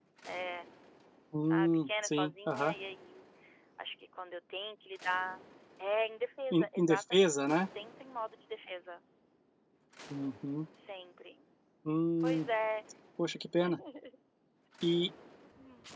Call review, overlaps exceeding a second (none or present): present